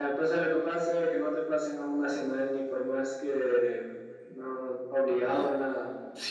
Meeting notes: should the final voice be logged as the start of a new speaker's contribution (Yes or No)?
Yes